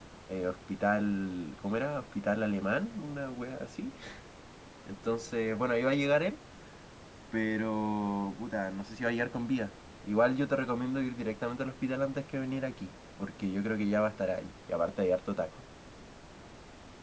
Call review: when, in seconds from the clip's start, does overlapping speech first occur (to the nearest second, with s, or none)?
none